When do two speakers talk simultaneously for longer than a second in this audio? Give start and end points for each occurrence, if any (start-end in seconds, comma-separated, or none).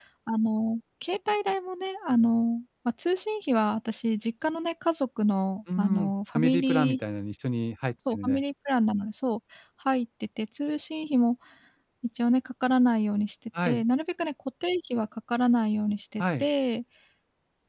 5.8-7.0